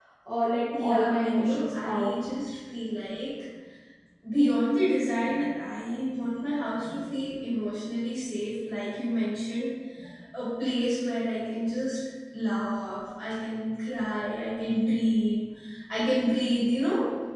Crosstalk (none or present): present